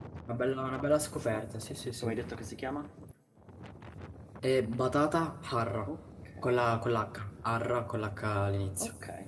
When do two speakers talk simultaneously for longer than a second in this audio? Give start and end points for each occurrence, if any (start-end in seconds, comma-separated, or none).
none